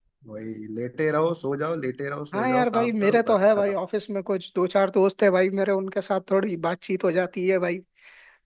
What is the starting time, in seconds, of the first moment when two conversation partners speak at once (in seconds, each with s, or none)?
2.3 s